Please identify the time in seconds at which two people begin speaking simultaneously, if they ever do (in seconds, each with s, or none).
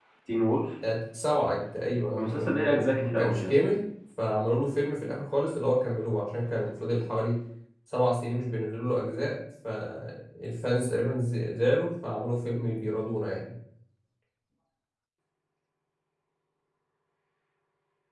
2.1 s